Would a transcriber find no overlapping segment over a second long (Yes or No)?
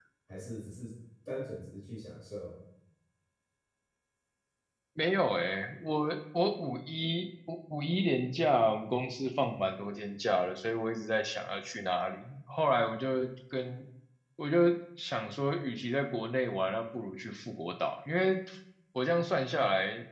Yes